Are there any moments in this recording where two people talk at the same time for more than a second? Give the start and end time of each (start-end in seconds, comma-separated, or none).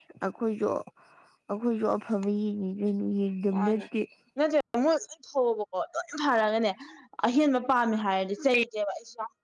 none